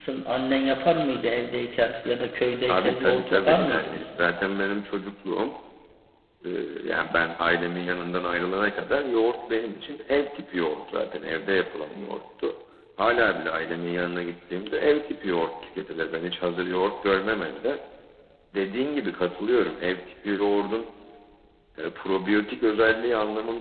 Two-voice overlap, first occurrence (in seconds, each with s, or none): 2.7 s